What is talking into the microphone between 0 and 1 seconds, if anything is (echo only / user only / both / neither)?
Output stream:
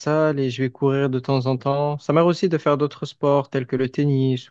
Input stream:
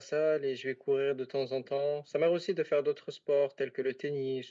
echo only